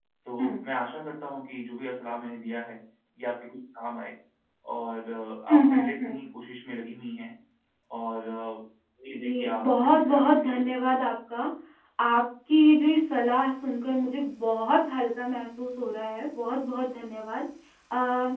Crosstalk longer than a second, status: present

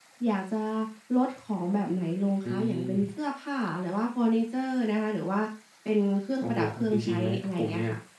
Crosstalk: present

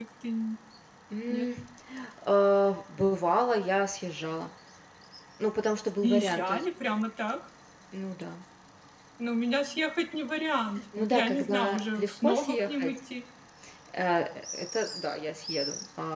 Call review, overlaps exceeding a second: present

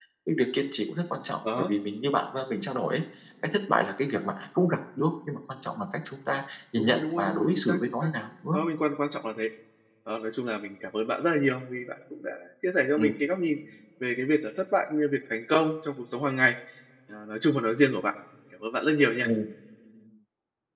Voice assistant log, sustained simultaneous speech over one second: present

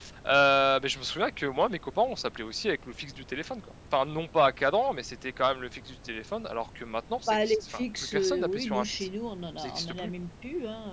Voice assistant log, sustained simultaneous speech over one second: present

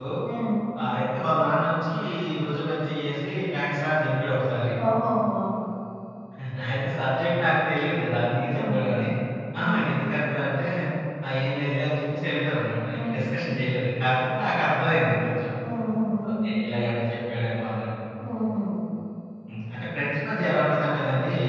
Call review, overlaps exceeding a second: none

